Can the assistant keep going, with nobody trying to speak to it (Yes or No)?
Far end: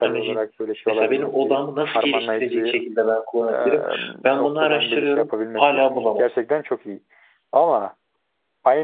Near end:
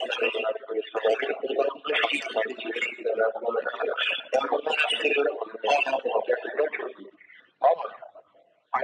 Yes